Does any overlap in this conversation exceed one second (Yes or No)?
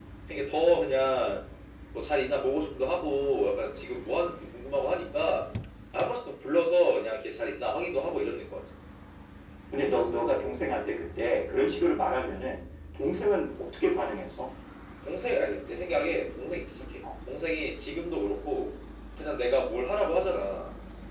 No